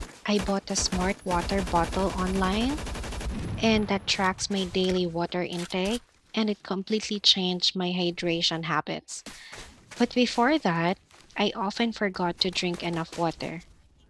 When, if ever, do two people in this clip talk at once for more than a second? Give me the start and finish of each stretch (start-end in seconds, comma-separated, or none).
none